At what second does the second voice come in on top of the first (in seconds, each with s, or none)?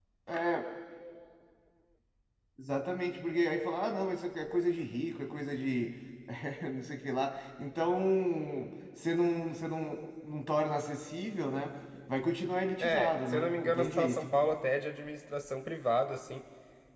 12.8 s